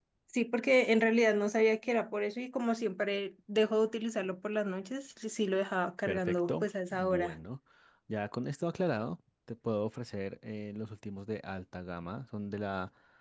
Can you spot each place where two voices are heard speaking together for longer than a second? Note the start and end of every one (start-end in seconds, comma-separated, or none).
6.0-7.3